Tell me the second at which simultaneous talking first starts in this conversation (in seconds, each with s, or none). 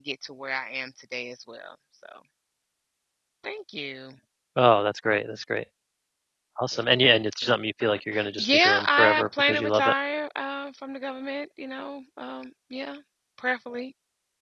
8.1 s